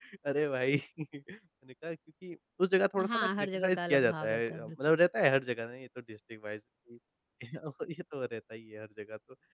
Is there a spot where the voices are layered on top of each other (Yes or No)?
Yes